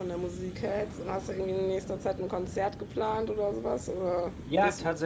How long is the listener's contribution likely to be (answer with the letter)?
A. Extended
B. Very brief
A